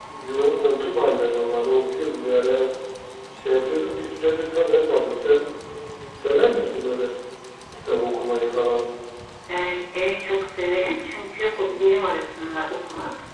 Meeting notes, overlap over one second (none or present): none